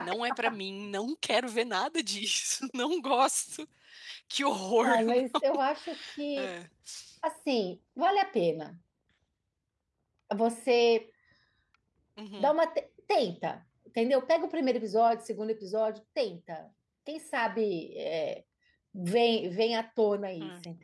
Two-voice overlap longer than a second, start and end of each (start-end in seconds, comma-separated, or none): none